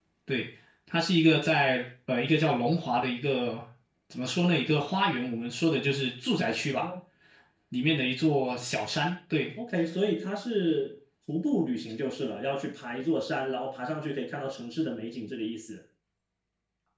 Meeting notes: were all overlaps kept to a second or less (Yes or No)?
Yes